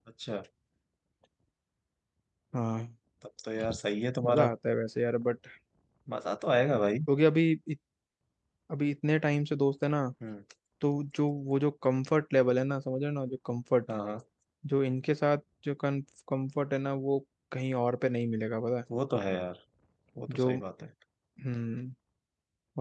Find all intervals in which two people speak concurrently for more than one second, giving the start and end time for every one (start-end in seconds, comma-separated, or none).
none